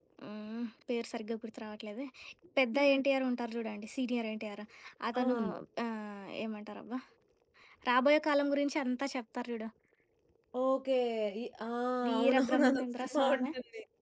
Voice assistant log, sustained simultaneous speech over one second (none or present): present